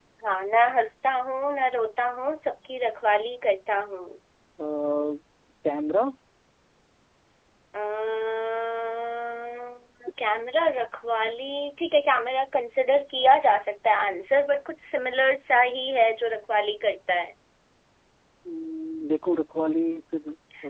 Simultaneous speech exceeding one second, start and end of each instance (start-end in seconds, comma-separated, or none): none